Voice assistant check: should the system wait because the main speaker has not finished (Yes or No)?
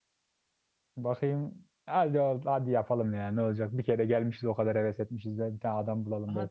No